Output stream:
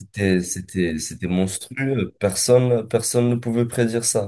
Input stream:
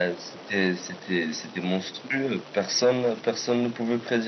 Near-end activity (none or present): none